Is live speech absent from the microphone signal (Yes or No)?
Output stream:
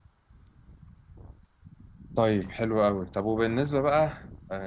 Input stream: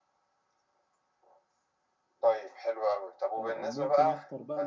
No